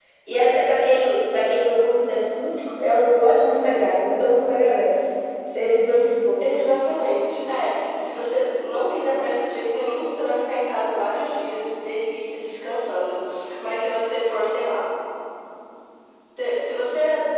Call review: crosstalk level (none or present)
none